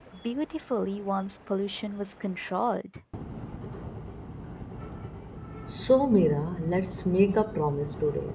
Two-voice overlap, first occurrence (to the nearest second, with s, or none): none